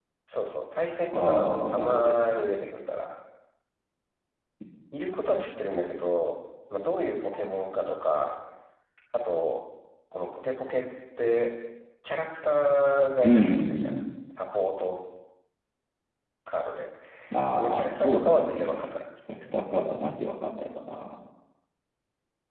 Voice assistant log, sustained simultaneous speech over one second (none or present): present